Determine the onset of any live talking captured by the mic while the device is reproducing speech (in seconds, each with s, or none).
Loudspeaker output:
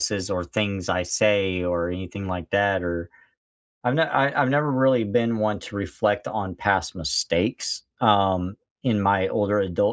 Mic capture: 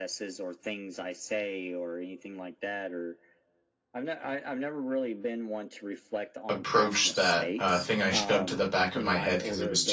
6.5 s